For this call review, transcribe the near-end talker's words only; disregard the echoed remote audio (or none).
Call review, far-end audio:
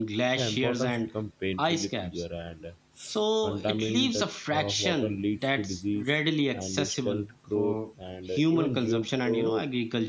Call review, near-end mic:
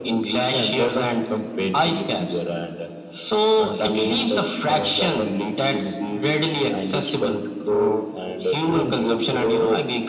none